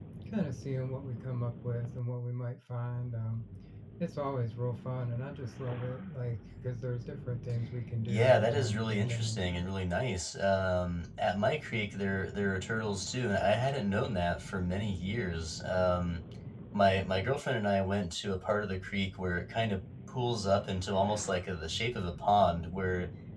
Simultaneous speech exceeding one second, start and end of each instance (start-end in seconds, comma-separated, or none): 8.1-9.4